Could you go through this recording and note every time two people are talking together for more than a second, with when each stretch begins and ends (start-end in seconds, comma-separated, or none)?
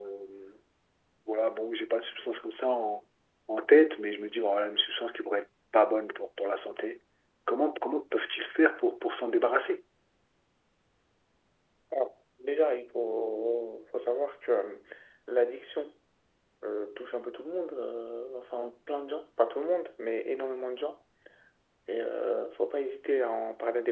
none